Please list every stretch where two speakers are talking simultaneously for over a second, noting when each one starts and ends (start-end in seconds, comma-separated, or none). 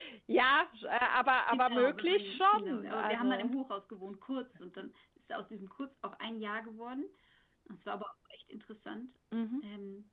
1.5-3.5